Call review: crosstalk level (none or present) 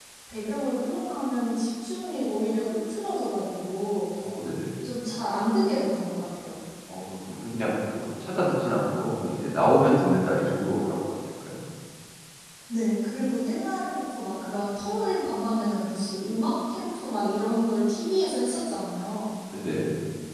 none